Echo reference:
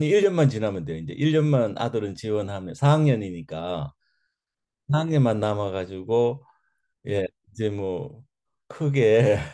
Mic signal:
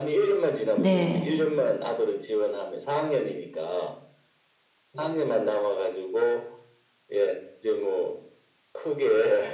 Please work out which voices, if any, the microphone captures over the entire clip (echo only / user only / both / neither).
both